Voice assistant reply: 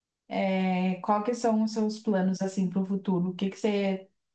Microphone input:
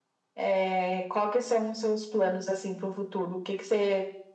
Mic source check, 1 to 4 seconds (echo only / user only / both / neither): echo only